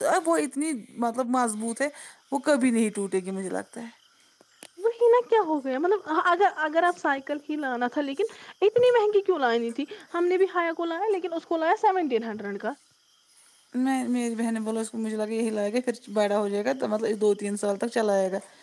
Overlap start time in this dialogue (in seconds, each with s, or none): none